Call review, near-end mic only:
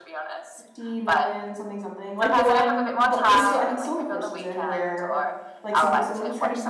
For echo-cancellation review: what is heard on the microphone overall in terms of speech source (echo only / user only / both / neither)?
both